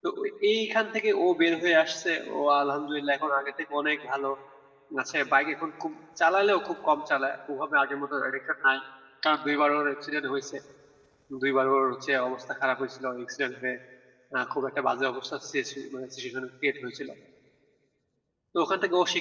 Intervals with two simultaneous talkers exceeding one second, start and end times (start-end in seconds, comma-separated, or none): none